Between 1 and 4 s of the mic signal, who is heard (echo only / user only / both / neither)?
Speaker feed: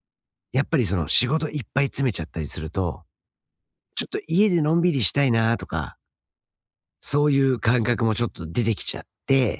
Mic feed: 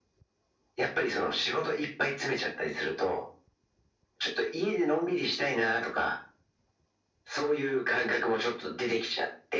echo only